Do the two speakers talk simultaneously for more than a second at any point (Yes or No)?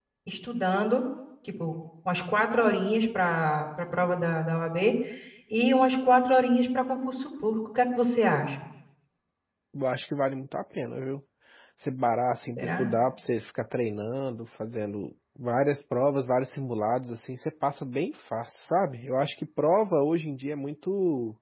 No